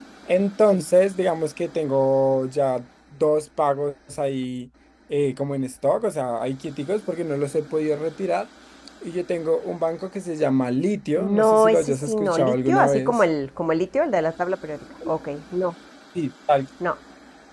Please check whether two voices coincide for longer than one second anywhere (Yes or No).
Yes